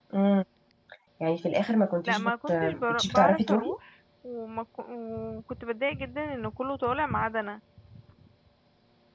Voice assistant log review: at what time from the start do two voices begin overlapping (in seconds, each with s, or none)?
2.0 s